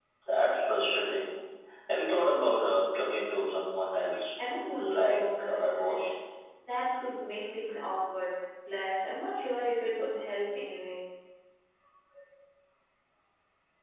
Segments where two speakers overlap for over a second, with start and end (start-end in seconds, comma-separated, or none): 4.7-6.1